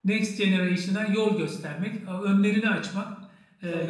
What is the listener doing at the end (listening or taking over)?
listening